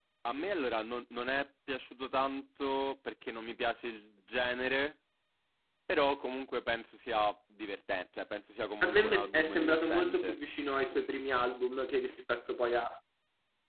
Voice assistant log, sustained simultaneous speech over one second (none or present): present